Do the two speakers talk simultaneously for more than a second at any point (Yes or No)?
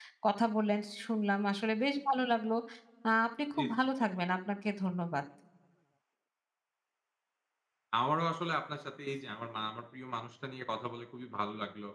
No